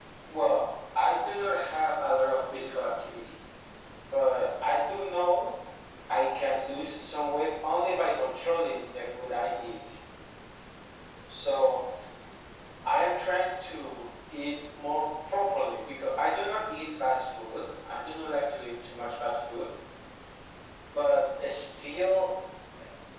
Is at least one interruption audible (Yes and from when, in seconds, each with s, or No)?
No